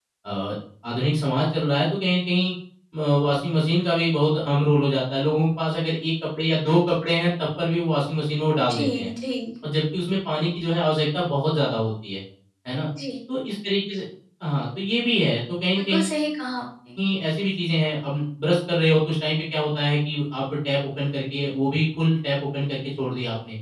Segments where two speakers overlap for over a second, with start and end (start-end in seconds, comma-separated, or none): none